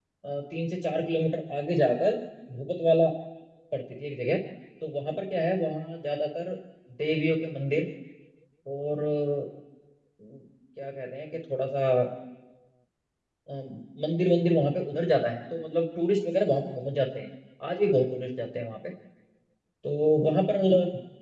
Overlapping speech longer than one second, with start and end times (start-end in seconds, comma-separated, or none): none